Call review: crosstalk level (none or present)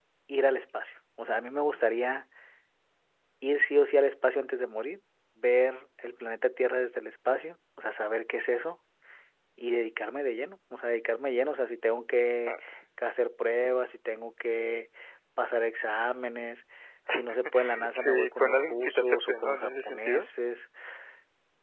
present